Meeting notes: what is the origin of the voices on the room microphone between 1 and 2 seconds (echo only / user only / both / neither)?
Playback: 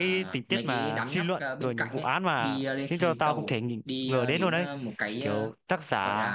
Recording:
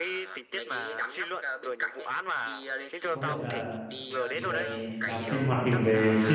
echo only